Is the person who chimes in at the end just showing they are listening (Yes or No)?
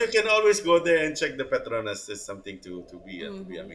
No